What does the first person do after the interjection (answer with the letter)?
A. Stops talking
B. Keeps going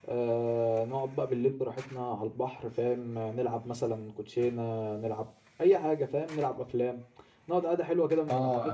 A